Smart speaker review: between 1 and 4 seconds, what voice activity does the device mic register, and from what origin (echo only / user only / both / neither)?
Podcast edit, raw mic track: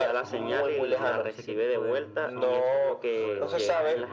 both